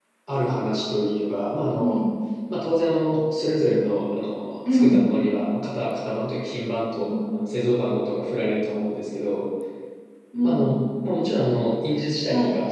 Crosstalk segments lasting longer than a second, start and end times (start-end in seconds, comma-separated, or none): none